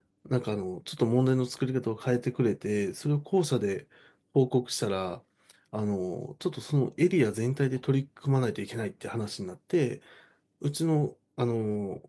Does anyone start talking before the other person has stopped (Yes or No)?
No